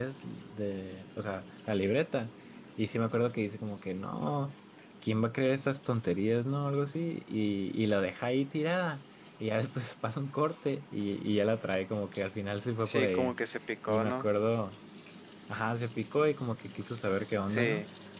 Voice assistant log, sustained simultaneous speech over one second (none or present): none